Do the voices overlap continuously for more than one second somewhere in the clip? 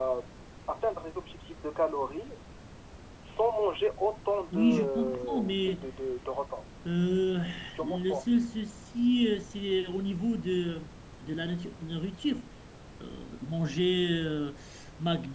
Yes, from 4.5 s

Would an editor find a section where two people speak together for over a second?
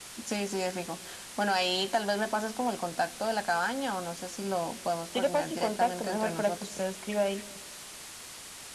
Yes, from 5.2 s

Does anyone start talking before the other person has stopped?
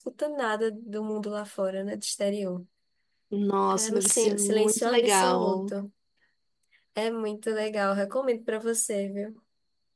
Yes, from 3.7 s

